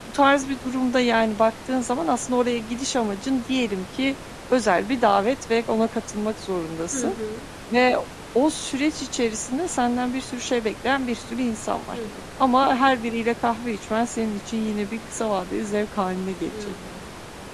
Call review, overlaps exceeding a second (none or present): none